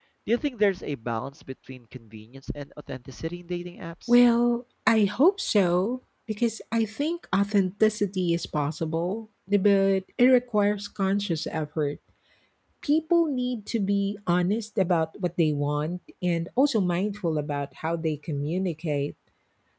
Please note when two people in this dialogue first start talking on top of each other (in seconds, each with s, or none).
none